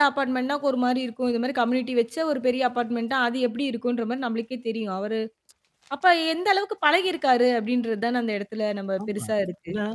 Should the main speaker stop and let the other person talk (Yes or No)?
Yes